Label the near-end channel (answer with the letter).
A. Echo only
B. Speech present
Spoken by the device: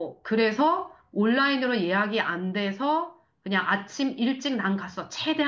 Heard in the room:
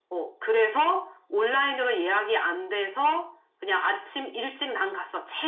A